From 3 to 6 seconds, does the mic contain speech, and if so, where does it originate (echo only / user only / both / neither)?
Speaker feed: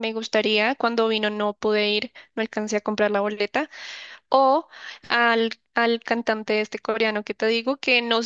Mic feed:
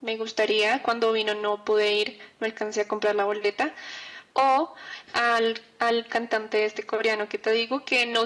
echo only